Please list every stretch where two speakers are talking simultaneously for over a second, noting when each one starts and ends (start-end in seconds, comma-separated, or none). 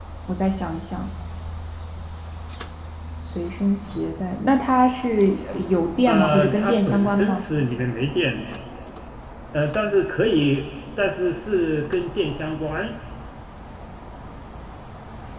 6.1-7.4